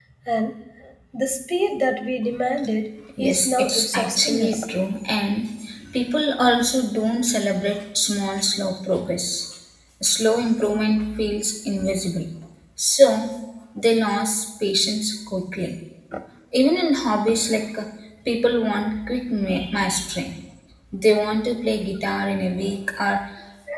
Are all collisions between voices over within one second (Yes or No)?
No